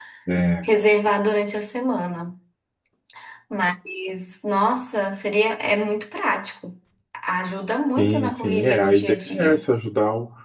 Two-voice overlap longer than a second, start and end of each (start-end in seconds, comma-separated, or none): 8.0-9.6